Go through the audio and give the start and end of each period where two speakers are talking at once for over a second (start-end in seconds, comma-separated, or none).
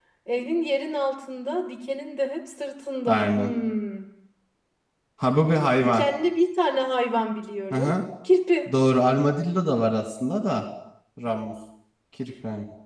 none